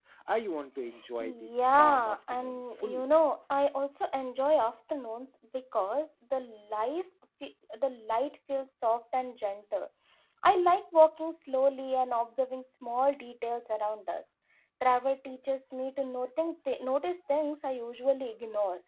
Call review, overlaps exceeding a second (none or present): present